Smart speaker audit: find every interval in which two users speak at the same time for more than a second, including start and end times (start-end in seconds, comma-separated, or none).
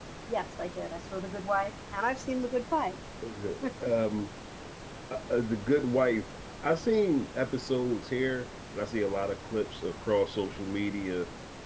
none